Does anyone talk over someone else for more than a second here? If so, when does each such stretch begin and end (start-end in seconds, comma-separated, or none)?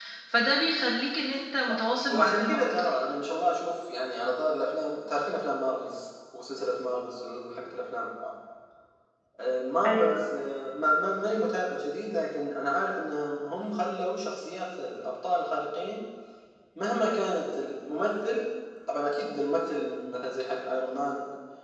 1.7-3.0